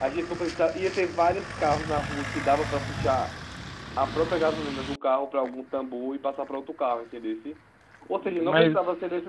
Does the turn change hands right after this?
No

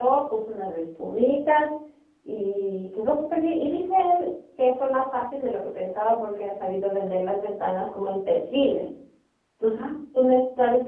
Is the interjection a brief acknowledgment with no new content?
Yes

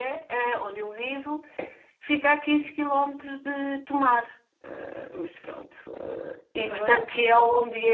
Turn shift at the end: No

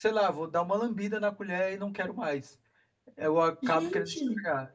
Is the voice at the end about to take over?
No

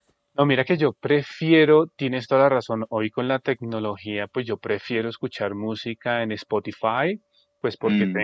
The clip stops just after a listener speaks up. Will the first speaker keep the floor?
Yes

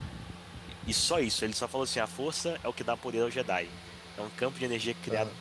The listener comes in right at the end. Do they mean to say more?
No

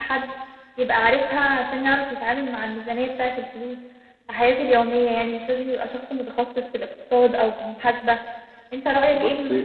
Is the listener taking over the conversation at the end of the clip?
No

